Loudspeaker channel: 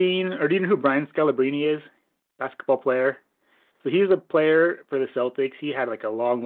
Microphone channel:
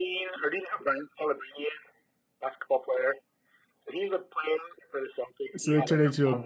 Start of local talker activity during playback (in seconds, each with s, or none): 5.6 s